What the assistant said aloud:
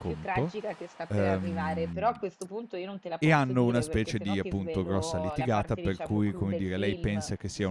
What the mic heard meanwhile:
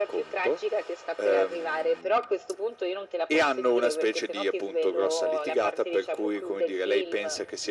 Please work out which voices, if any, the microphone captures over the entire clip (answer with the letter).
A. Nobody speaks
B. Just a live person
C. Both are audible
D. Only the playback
D